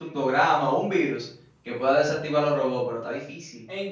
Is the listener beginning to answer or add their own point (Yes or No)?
Yes